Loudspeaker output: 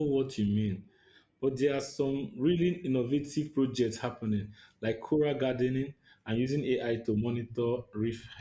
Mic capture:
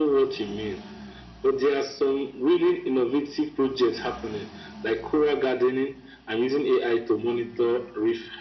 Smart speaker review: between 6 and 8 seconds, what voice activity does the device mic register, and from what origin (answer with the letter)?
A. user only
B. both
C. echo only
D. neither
C